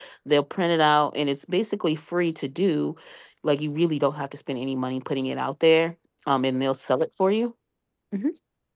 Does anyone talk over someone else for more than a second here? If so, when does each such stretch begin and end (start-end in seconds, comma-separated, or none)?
none